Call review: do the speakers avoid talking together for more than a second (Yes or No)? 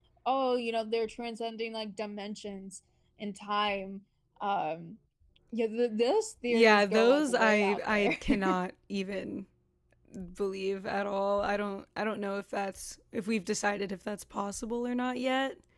No